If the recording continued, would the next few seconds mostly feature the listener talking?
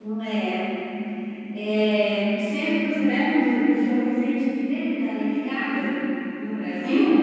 Yes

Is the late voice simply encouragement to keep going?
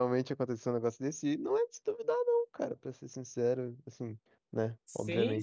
No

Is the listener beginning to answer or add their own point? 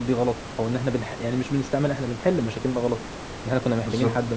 No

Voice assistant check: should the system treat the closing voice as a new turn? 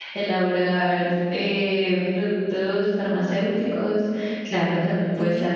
No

